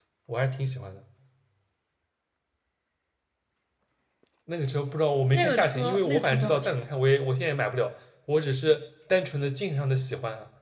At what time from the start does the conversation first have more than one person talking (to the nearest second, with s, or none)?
5 s